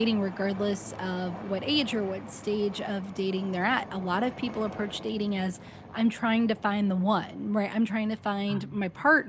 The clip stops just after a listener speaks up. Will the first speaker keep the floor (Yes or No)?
Yes